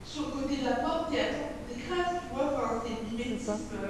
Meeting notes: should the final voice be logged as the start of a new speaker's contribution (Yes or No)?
No